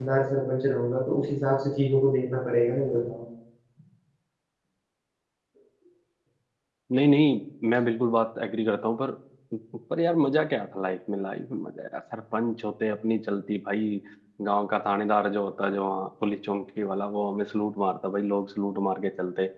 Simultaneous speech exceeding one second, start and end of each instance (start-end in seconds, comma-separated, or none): none